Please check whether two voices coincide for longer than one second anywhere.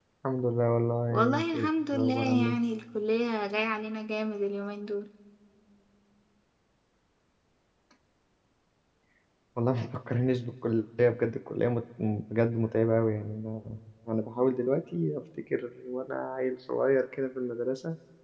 Yes, from 1.1 s

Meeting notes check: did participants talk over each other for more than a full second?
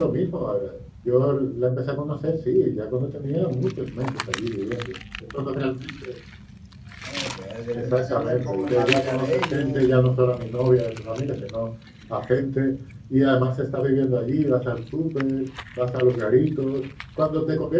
Yes, from 7.7 s

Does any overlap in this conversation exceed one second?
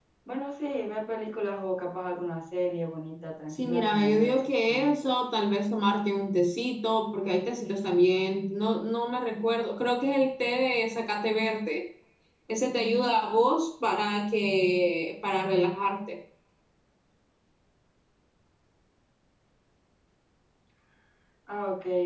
Yes, from 3.5 s

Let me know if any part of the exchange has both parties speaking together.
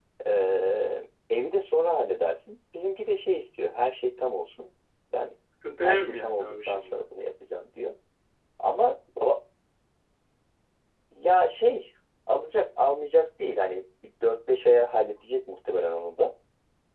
Yes, from 5.8 s

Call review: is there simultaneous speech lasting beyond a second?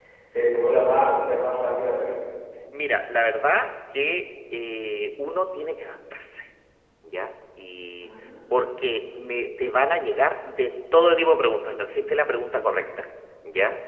No

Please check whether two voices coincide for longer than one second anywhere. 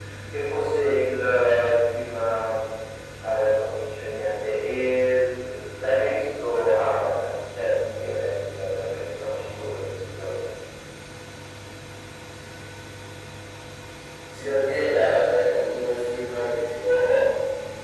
No

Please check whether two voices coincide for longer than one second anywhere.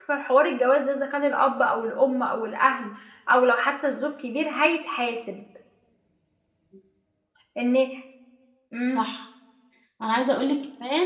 No

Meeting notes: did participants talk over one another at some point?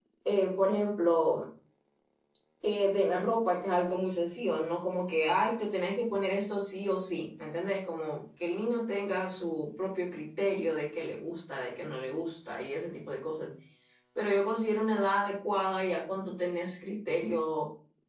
No

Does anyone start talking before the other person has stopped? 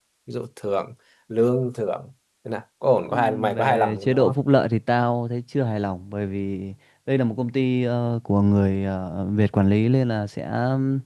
Yes, from 3.1 s

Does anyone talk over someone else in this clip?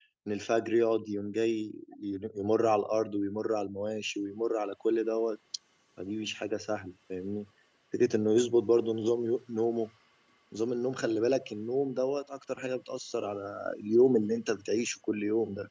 No

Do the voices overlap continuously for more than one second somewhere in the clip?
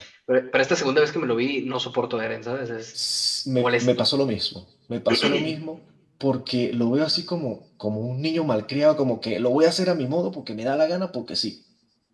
No

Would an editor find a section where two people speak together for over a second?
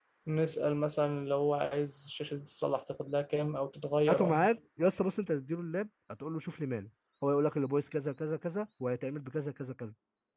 No

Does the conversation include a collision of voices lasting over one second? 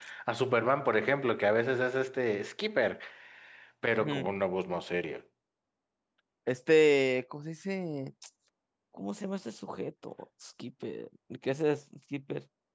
No

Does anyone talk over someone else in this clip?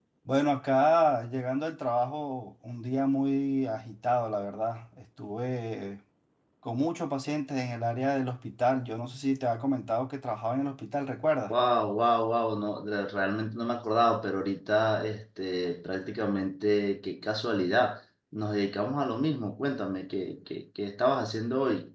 No

